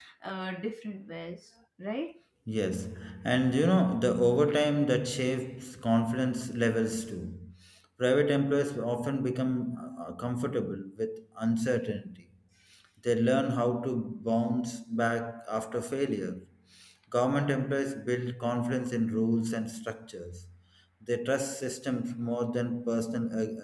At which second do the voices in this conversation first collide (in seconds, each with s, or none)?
none